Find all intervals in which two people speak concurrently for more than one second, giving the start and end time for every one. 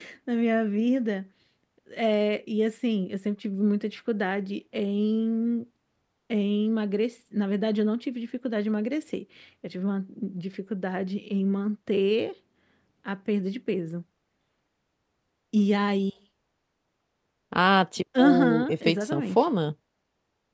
18.2-19.4

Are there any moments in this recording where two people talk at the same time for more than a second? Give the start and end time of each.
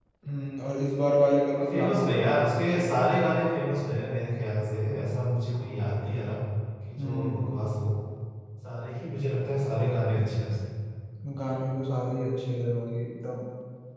1.6-2.9

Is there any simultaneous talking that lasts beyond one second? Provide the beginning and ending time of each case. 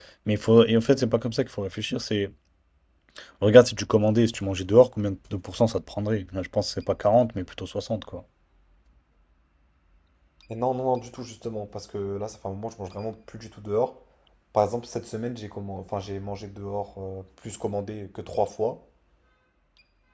none

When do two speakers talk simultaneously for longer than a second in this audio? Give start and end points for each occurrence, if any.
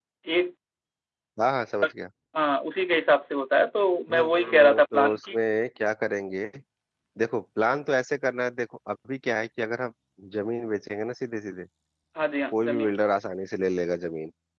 4.1-5.4

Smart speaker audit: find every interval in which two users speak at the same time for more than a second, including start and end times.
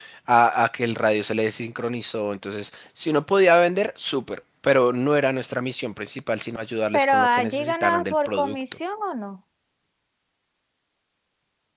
6.9-8.6

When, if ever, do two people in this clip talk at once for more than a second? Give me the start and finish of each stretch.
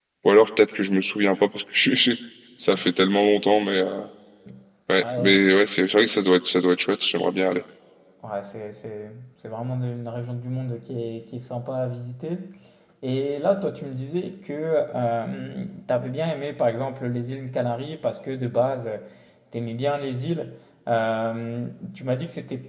none

